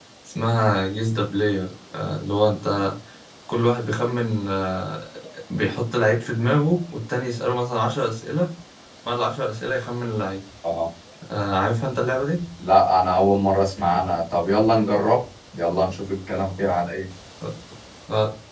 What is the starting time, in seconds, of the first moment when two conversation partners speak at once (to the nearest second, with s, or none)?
none